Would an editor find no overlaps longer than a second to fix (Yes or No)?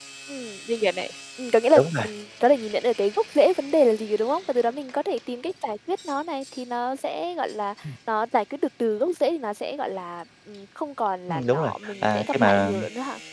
No